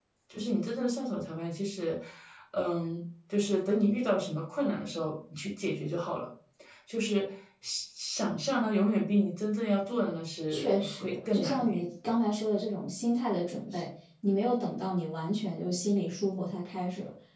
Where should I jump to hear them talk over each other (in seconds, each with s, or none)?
10.5 s